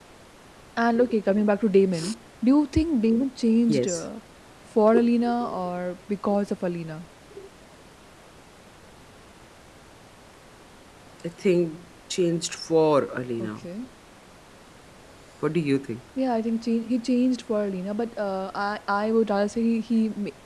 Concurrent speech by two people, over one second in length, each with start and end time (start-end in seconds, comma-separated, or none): none